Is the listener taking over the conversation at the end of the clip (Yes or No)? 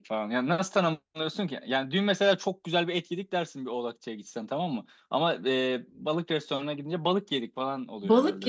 Yes